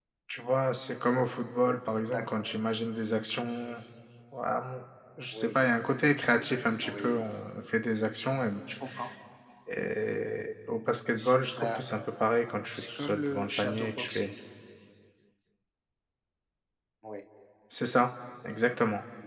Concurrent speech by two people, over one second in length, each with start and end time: 12.7-14.3

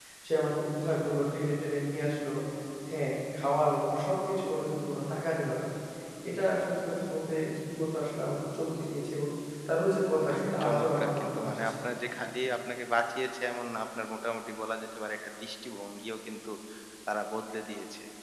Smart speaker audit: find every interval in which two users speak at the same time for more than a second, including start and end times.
10.3-11.7

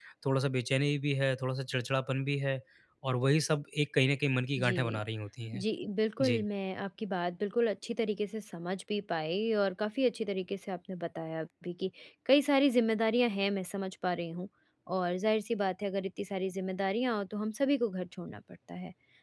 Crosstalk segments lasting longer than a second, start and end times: none

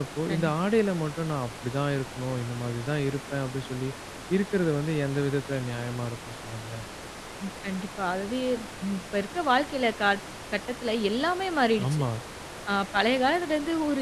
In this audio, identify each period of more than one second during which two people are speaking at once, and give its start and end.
none

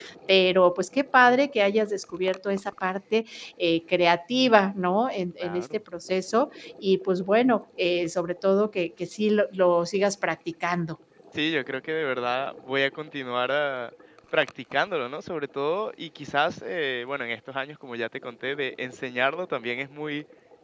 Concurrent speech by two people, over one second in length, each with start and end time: none

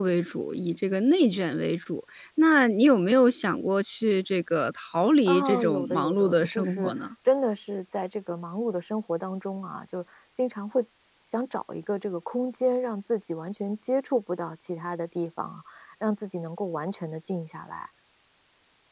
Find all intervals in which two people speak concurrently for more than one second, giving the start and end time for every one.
5.3-6.9

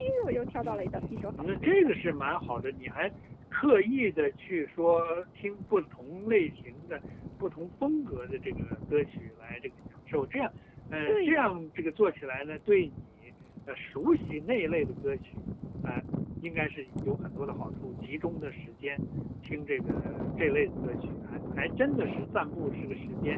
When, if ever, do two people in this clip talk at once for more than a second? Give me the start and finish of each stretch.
0.6-2.4

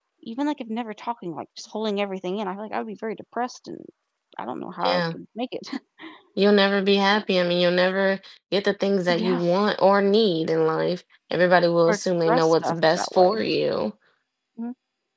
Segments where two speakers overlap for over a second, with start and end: 11.9-13.4

